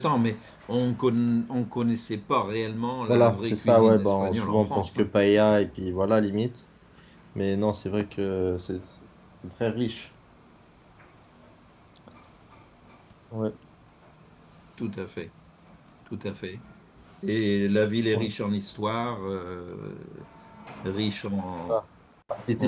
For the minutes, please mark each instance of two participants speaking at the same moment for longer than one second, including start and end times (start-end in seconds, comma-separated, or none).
3.1-5.1